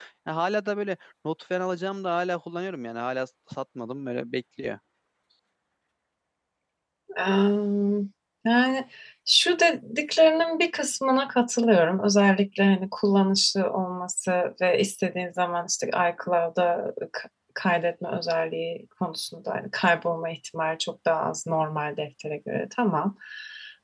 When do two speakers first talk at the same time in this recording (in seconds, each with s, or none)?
none